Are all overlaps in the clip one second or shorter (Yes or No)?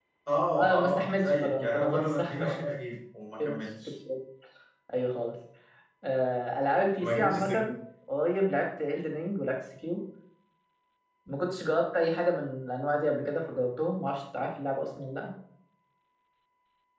No